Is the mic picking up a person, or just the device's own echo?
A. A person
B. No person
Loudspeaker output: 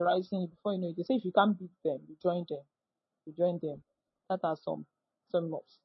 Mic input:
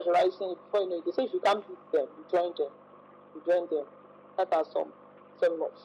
B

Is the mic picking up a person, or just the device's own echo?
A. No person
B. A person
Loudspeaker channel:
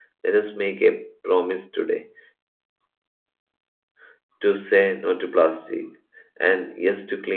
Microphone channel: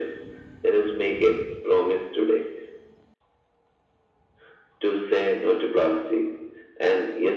A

